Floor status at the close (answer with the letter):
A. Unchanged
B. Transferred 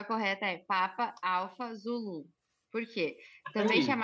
A